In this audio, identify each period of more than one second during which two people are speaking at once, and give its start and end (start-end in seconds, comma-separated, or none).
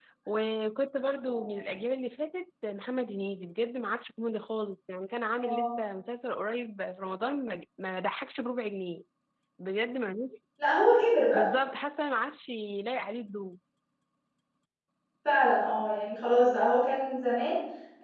none